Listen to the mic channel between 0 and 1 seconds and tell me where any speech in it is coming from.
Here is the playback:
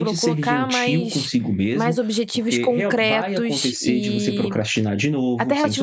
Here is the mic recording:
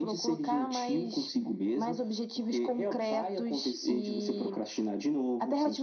echo only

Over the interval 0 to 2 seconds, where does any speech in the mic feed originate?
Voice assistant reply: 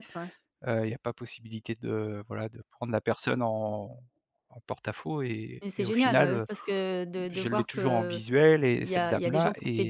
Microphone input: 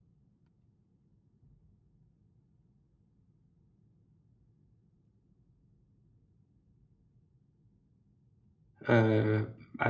neither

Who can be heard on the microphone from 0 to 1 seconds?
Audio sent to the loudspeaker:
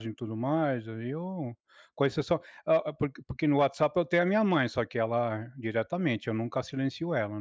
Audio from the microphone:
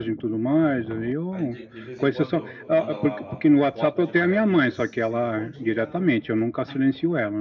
echo only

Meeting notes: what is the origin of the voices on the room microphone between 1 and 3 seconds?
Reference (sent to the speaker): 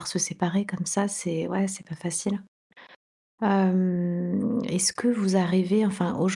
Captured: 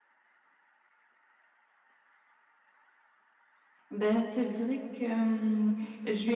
neither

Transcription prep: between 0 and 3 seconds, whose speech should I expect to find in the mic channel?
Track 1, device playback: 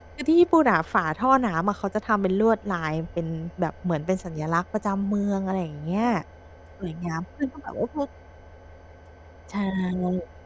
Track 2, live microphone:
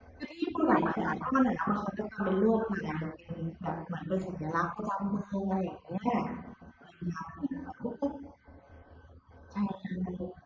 echo only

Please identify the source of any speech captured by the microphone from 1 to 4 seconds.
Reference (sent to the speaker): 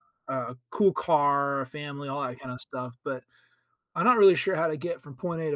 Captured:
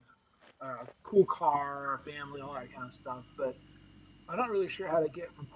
echo only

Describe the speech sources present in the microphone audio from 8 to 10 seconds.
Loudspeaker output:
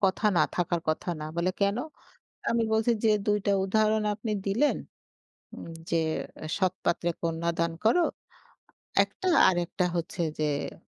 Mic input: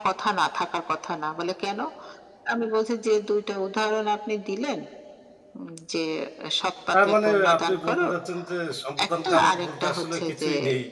both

